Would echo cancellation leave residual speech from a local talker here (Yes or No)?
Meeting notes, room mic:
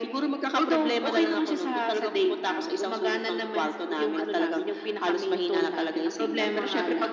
No